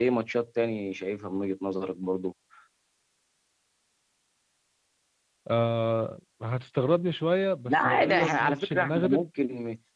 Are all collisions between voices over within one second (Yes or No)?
No